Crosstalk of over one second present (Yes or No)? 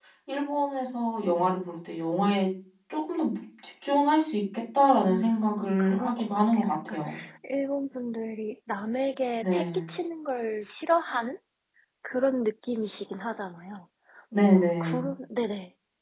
Yes